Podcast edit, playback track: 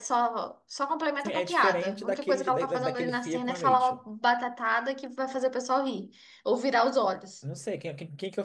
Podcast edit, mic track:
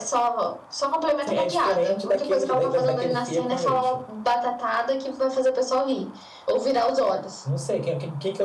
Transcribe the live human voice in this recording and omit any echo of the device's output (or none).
none